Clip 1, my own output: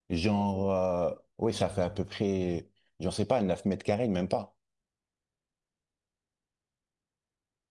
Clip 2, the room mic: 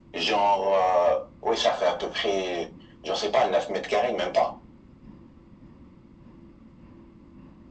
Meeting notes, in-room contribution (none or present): none